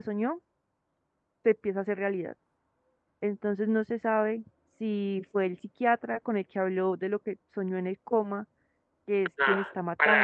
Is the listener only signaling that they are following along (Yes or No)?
No